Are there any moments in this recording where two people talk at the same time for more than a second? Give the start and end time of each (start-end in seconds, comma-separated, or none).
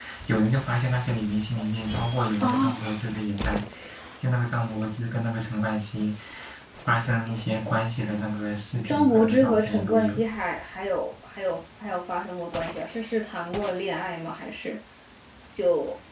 8.9-10.2